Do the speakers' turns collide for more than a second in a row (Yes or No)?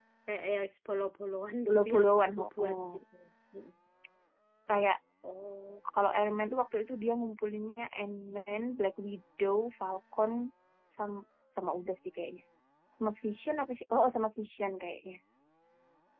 Yes